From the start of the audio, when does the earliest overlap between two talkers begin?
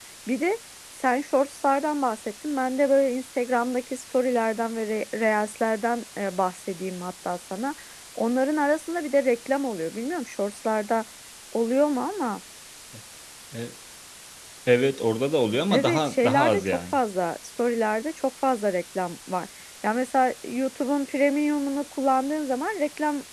15.7 s

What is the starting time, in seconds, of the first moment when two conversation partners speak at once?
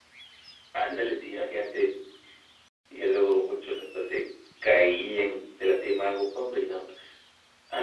none

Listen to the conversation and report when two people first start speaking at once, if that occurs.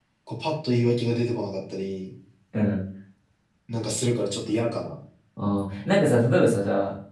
none

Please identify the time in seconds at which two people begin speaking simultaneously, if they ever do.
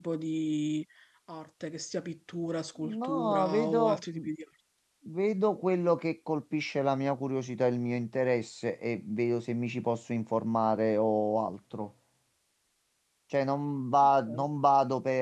2.8 s

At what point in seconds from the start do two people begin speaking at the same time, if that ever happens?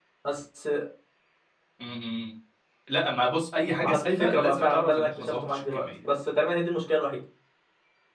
3.8 s

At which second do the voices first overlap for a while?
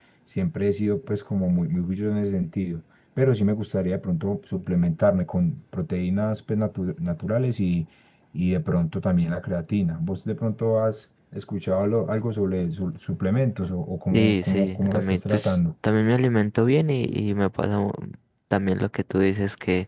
14.1 s

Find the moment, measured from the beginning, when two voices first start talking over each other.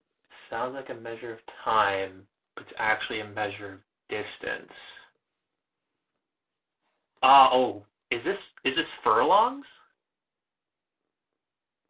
none

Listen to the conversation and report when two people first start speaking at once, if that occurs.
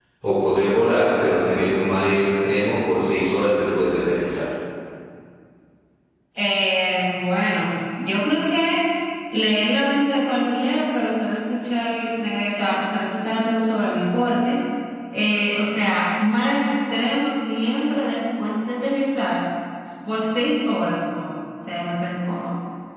none

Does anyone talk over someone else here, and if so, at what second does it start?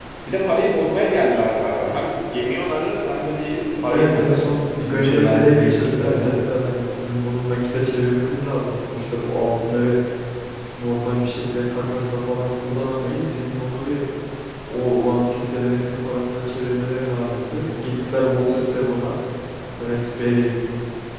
3.8 s

